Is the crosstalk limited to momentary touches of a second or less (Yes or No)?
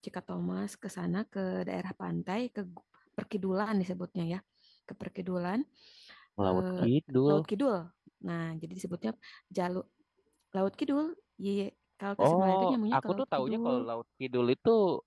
No